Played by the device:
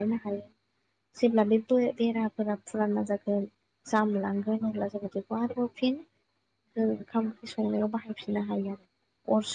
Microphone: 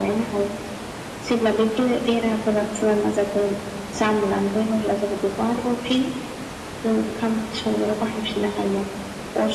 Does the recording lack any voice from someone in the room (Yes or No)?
Yes